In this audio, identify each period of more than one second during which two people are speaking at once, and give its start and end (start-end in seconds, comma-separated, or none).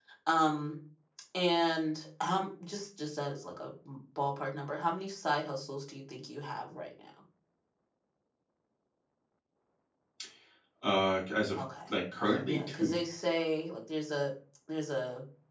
none